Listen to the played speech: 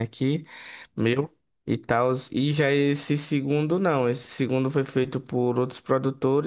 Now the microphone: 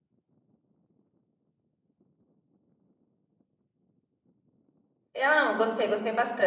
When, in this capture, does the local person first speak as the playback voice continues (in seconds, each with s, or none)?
5.1 s